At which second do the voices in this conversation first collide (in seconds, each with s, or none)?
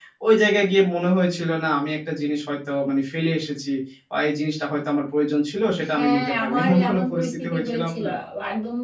5.8 s